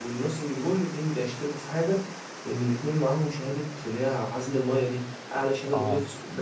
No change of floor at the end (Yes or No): Yes